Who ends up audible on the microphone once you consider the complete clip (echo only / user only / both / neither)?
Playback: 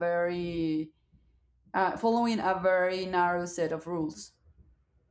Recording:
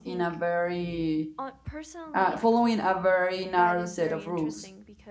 both